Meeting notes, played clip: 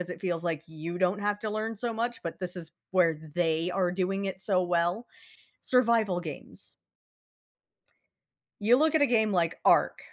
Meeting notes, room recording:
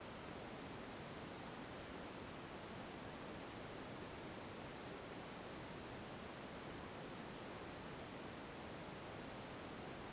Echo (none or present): none